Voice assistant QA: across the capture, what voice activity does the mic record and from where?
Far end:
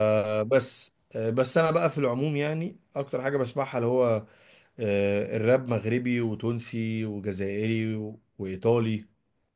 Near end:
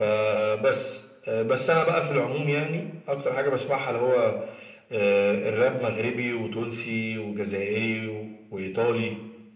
echo only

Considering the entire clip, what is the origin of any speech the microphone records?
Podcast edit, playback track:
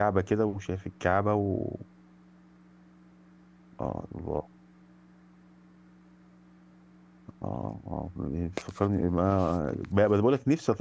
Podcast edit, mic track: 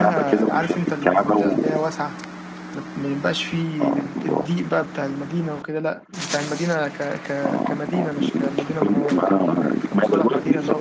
both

